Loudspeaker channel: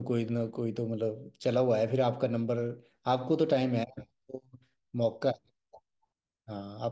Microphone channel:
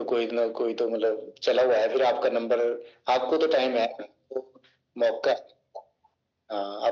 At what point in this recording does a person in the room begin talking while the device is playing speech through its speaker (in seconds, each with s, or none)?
none